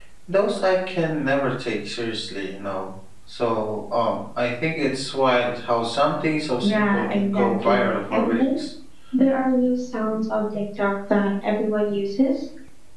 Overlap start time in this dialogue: 6.6 s

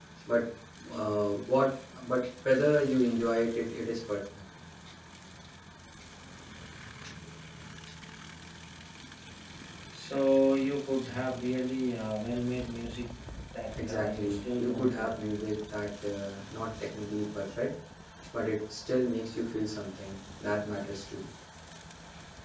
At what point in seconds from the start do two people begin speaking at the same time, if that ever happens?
13.9 s

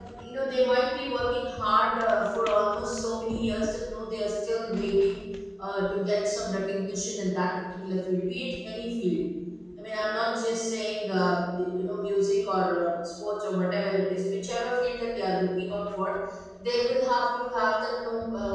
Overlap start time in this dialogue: none

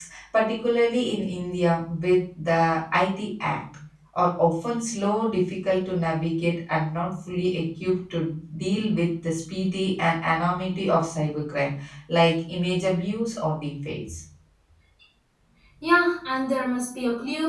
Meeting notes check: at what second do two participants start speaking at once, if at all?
none

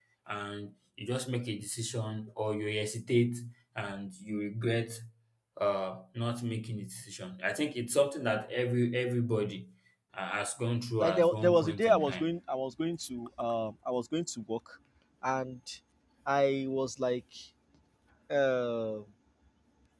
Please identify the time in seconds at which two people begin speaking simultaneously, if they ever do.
11.0 s

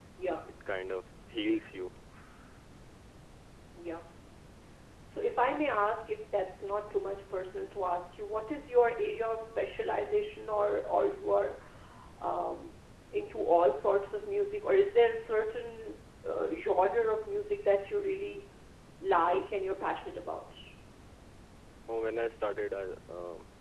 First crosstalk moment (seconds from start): none

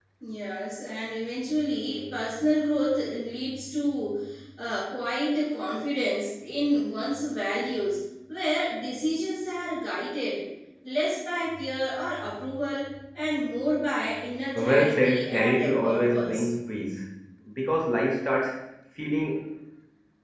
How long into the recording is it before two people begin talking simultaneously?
14.6 s

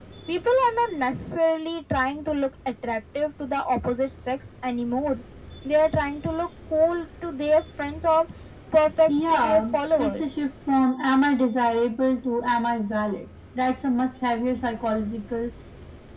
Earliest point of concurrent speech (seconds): 9.1 s

